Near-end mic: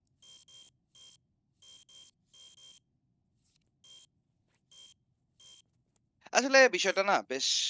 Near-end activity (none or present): present